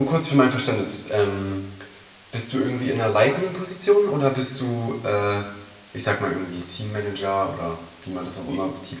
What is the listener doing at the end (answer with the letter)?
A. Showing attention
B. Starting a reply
B